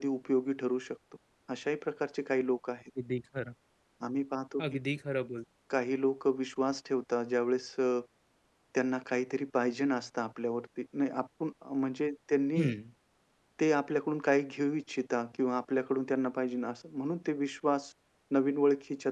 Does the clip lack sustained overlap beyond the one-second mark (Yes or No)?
Yes